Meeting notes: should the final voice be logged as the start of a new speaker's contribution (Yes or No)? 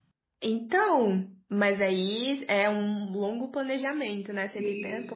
Yes